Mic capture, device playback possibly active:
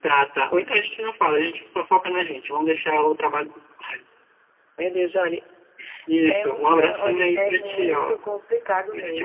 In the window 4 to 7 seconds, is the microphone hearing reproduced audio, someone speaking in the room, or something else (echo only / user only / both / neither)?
echo only